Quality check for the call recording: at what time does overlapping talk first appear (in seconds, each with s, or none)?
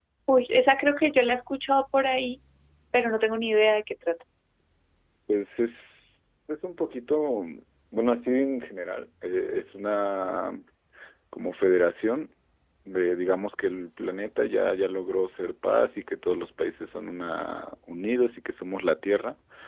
none